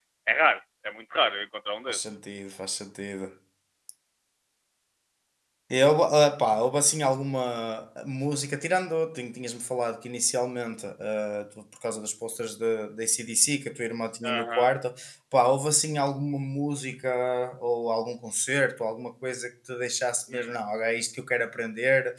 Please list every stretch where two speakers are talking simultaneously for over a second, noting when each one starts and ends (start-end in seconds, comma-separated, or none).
none